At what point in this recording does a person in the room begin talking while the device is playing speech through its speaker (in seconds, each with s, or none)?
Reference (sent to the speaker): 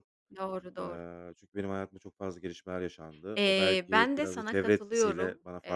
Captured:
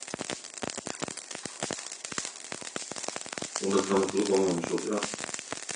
3.6 s